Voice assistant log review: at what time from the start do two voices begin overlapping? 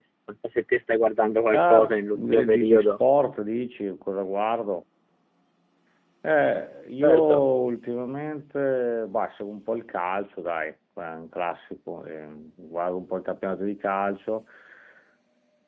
1.5 s

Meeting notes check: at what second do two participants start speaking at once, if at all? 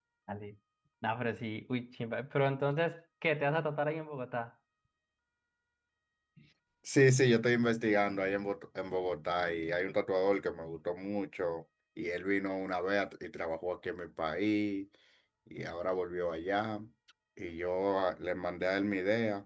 none

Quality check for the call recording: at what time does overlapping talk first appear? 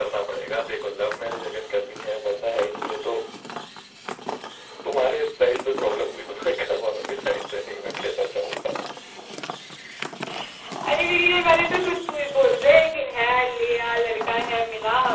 none

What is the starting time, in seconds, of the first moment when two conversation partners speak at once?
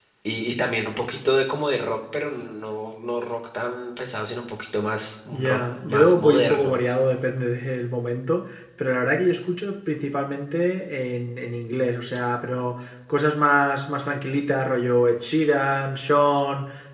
5.3 s

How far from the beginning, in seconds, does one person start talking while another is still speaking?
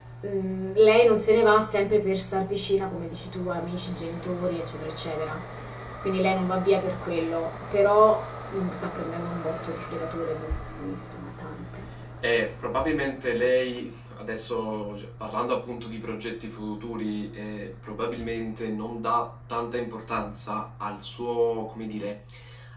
none

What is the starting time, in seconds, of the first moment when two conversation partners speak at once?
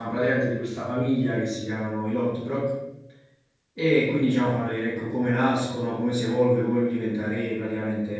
none

